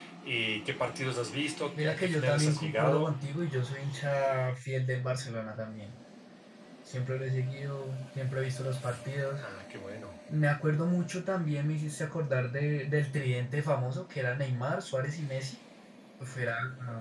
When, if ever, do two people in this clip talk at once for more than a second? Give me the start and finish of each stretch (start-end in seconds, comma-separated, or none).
1.8-3.1